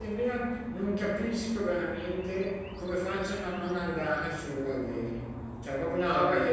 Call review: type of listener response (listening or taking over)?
taking over